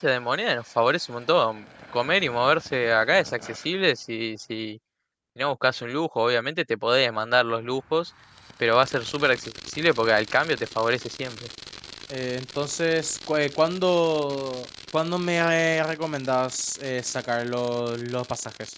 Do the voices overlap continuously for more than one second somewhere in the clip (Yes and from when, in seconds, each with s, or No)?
No